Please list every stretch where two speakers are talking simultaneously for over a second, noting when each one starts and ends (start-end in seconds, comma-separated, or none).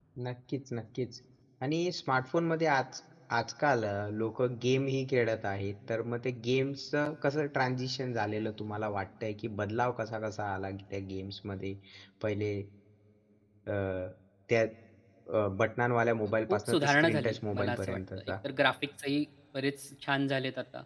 16.5-18.3